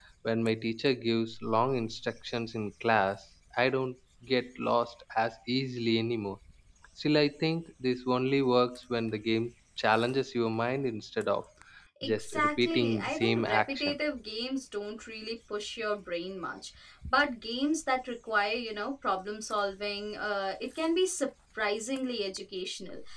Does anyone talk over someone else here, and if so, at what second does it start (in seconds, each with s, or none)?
12.0 s